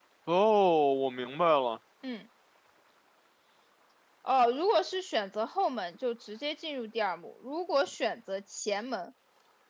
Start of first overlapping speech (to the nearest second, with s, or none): none